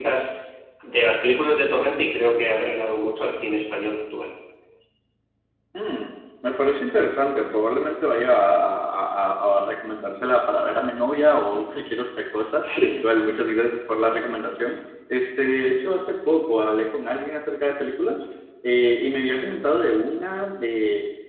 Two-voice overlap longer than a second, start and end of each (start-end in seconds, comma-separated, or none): none